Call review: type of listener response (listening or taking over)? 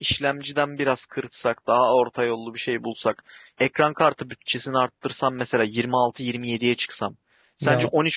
listening